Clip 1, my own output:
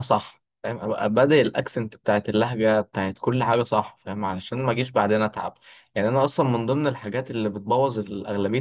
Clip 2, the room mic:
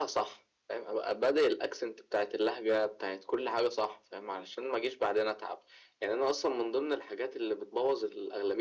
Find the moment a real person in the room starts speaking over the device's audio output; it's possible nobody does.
none

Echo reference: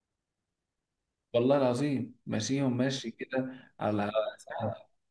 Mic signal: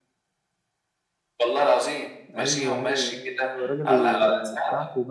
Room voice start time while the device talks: 2.3 s

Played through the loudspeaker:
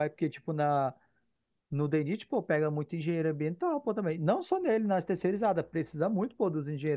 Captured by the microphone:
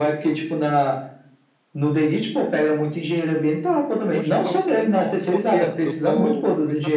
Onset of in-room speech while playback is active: 4.1 s

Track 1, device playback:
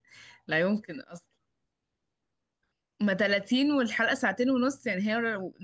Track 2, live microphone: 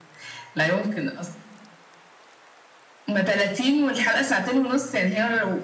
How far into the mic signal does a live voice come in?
none

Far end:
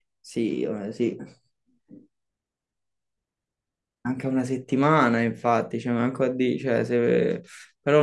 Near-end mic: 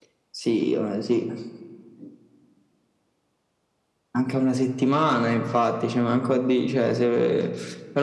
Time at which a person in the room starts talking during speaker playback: none

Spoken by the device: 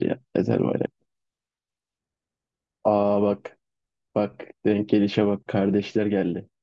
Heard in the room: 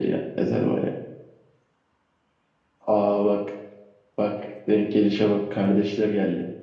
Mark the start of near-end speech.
none

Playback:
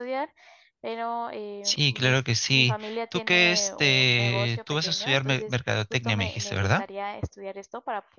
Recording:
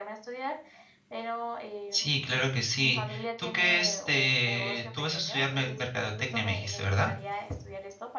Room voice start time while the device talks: none

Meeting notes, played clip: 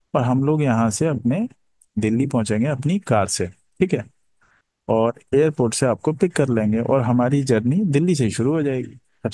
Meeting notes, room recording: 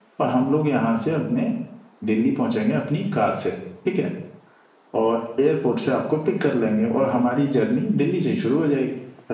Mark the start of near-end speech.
none

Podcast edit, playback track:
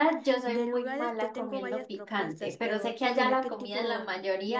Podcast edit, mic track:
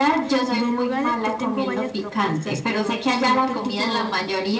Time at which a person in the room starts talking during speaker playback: none

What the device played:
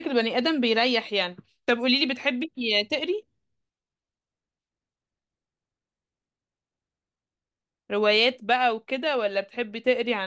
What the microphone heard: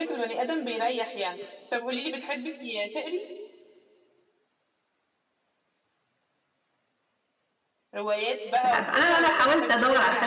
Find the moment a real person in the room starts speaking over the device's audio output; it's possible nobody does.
8.5 s

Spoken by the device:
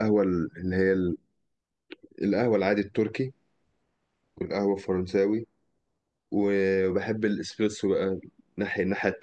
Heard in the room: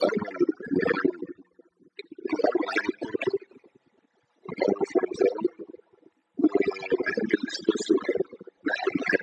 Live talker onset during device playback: none

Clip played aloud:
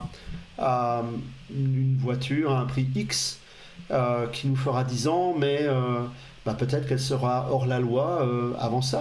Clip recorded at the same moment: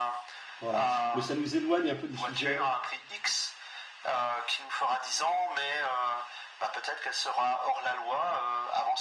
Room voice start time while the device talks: 0.6 s

